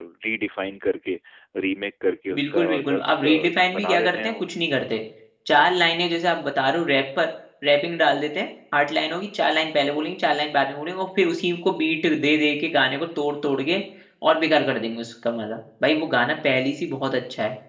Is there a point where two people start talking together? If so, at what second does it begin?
2.3 s

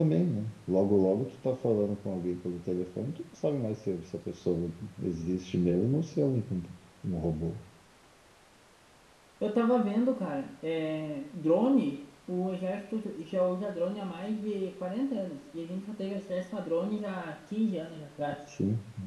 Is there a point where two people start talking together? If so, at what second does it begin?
none

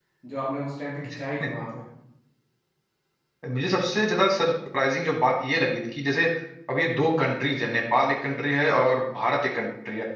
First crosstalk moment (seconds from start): none

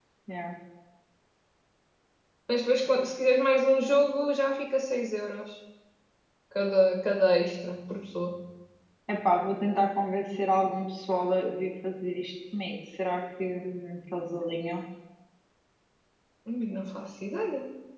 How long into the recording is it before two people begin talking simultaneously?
none

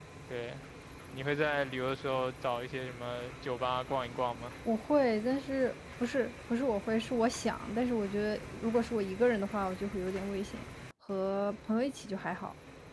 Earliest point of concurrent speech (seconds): none

